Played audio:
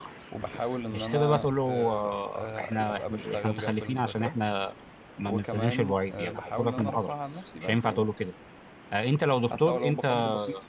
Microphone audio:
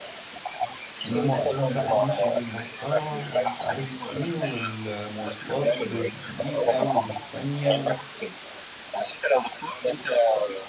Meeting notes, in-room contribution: present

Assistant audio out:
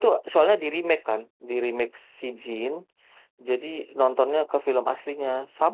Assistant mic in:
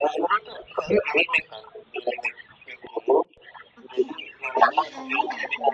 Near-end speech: present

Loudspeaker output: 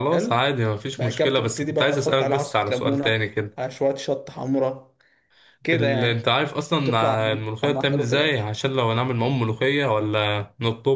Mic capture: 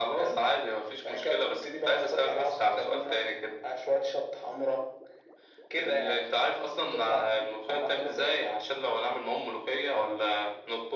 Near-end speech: none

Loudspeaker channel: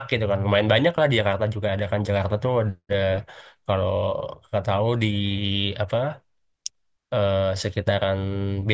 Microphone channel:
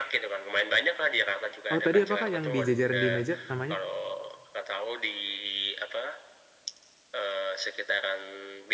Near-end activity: present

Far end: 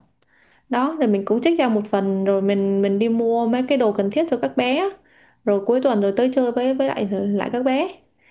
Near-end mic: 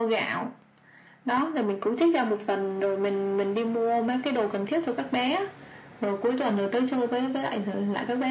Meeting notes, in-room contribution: none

